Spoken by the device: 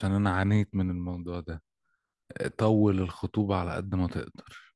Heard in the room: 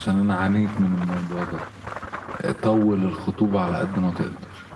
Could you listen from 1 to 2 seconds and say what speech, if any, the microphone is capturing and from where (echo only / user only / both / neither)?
echo only